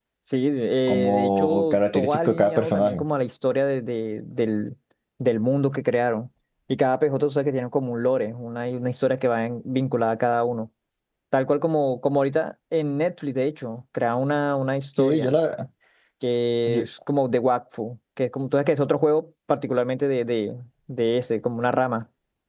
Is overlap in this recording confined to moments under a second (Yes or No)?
No